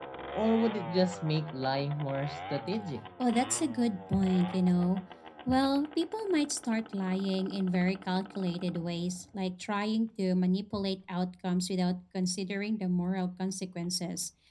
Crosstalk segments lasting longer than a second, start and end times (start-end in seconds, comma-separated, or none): none